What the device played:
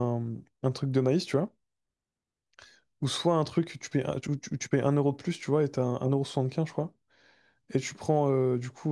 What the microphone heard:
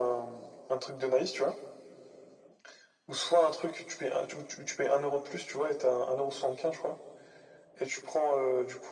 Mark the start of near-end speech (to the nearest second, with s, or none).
none